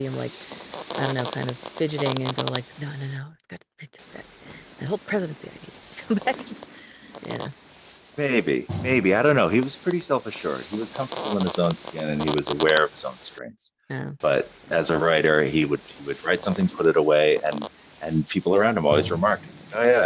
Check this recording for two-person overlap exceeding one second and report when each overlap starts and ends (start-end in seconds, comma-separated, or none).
none